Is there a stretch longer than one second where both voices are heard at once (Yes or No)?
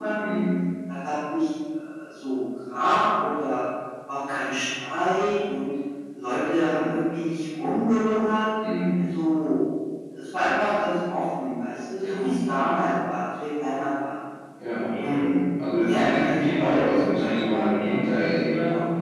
Yes